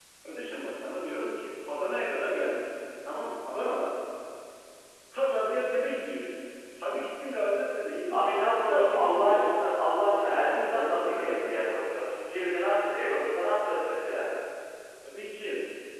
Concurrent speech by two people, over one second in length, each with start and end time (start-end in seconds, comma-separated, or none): 8.1-9.7, 10.3-11.6